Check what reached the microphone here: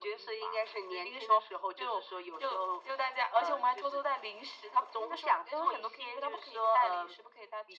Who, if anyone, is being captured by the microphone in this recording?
echo only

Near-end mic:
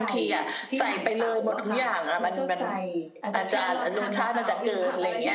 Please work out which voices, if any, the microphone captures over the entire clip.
both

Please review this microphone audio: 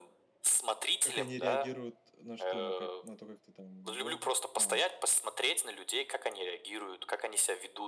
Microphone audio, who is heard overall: both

